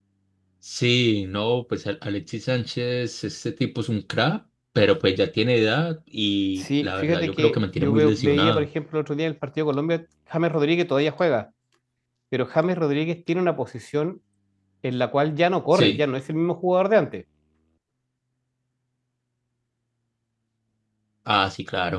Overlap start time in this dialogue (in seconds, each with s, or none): 6.6 s